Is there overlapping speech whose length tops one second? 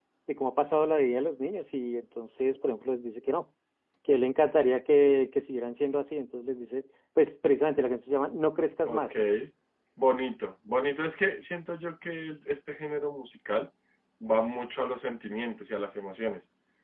No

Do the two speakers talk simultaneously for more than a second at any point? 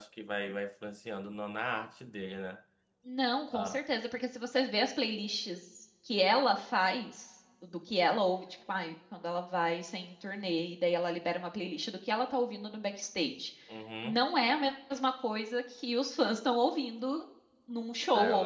No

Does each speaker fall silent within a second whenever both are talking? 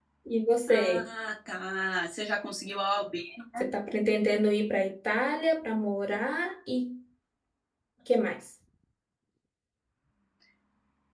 Yes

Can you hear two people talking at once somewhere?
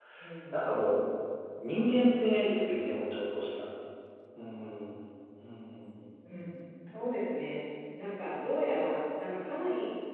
No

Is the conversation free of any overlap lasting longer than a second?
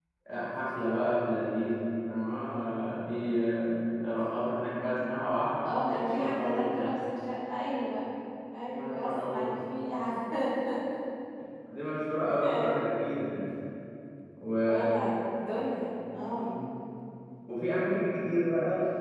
No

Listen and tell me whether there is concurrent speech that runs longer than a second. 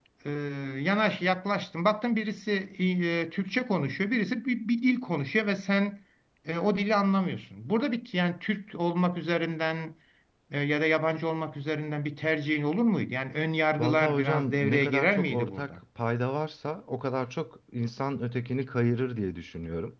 Yes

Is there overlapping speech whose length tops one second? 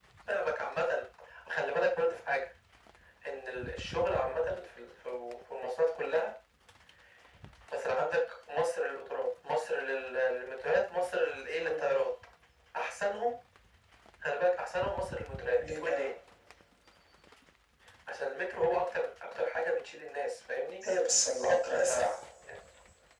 No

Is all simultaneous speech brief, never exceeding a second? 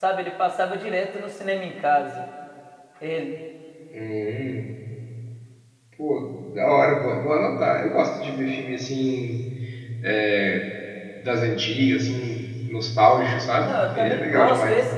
No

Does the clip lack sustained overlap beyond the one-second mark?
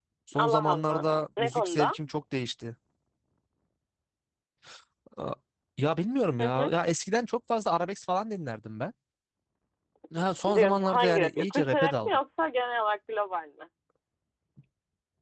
No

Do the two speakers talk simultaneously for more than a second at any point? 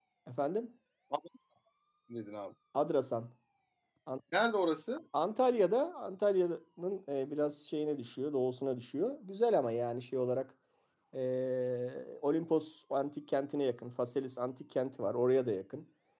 No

